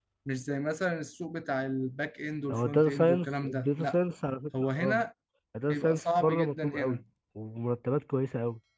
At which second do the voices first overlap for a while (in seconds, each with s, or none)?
2.5 s